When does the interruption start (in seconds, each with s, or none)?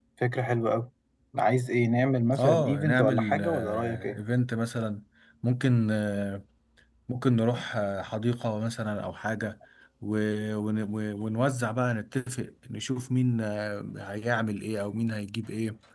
2.4 s